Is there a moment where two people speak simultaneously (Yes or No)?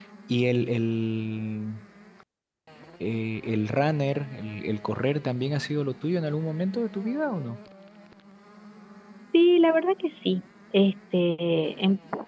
No